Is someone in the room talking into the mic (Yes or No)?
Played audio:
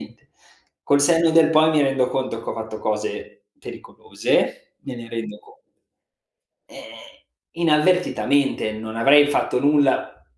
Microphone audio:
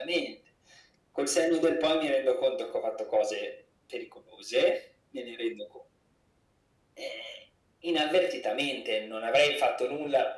No